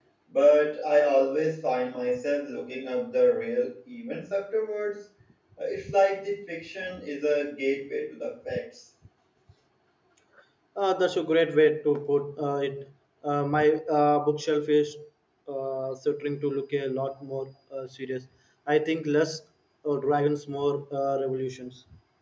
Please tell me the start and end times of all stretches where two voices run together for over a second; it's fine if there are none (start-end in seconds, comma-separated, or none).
none